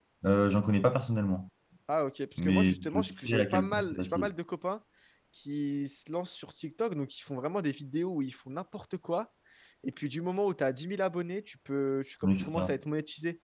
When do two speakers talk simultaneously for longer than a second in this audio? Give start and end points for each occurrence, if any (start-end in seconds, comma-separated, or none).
2.4-4.3